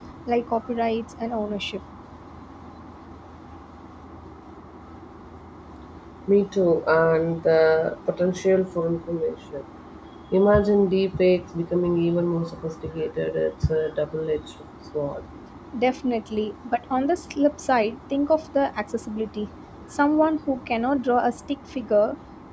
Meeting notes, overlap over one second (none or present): none